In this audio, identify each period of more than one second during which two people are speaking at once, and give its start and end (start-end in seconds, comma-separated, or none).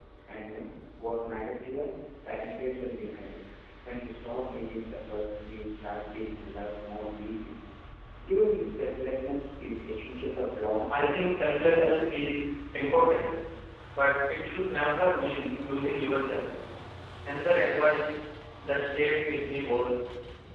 none